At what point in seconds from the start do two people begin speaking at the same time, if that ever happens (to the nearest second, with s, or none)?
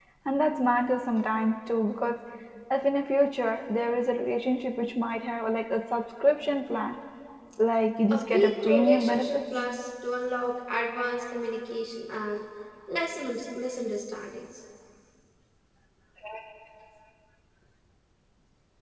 8 s